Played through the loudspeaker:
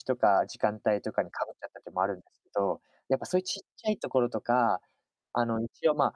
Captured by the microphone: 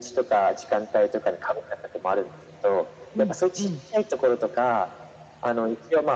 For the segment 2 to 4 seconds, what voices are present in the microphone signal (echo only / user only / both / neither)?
both